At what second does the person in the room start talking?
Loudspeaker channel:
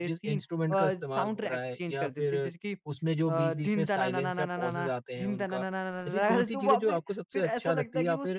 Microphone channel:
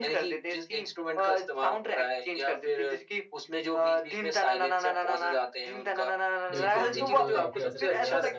6.5 s

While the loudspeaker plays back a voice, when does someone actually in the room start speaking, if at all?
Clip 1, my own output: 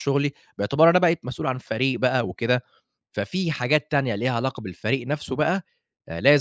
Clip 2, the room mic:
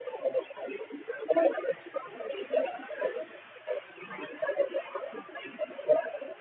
none

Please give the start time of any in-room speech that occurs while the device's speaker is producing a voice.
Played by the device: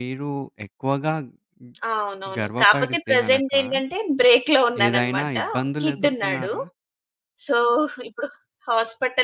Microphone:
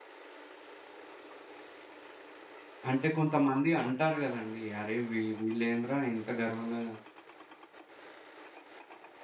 2.9 s

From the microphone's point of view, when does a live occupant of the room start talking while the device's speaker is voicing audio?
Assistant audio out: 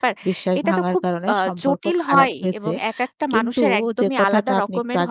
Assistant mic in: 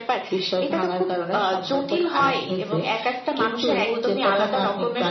none

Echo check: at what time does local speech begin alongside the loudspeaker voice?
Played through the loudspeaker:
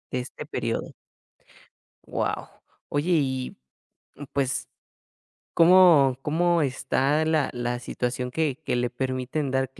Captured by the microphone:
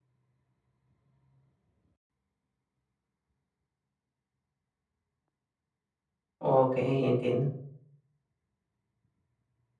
6.4 s

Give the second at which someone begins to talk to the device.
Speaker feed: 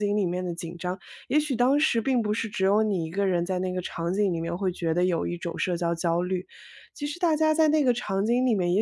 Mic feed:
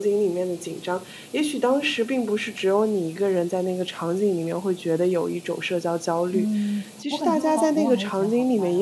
6.3 s

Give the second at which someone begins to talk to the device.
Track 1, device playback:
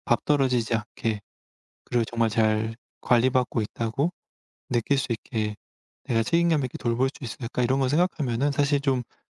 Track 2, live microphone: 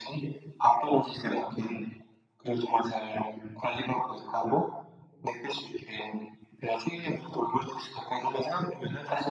none

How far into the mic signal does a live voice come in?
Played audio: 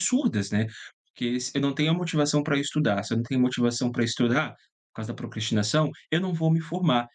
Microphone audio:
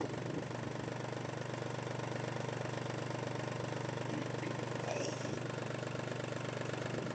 none

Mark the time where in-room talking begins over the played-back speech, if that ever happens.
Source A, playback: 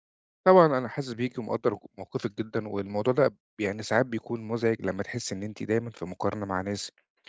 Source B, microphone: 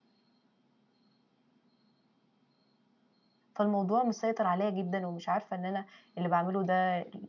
3.5 s

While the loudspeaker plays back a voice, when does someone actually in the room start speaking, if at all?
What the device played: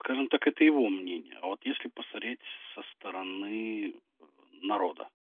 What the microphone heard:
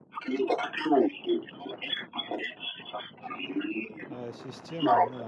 4.0 s

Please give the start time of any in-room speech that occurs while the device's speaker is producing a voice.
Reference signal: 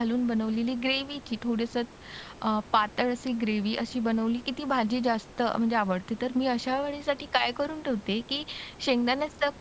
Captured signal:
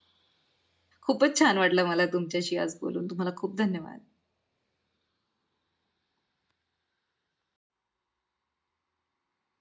1.1 s

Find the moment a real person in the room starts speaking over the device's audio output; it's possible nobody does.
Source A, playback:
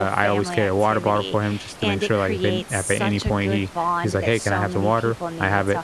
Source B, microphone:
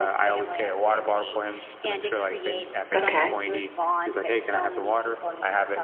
2.9 s

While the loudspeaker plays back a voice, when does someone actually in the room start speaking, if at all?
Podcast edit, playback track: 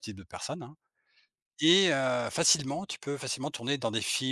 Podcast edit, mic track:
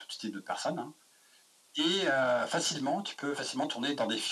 none

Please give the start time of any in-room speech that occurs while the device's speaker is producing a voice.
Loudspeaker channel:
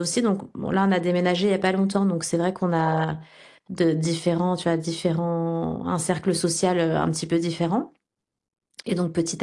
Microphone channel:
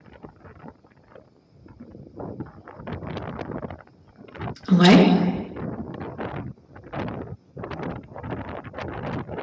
4.7 s

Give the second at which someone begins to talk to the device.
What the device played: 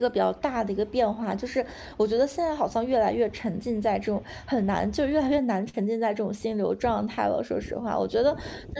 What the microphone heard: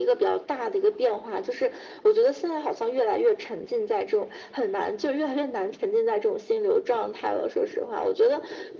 none

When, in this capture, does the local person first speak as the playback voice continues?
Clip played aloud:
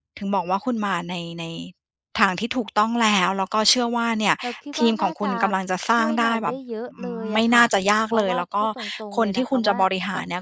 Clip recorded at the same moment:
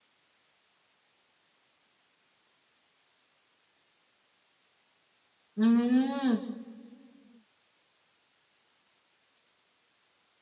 5.6 s

